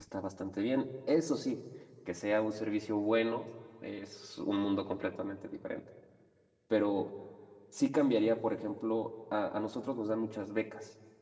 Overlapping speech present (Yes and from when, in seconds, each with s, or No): No